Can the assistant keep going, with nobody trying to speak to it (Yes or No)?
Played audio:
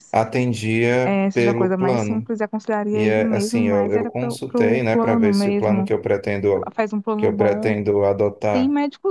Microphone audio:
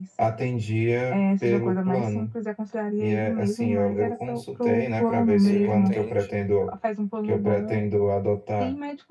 No